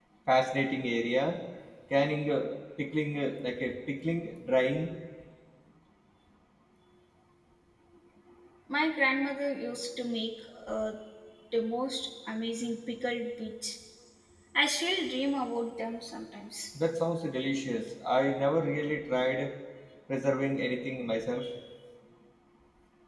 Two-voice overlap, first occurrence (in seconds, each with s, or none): none